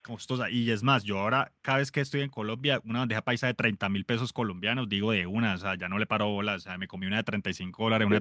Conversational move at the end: taking over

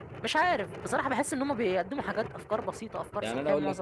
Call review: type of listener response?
taking over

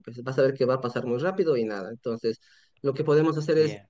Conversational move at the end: listening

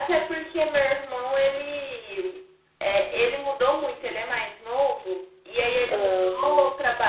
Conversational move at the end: listening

